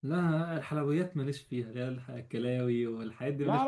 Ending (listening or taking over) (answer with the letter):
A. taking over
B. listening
A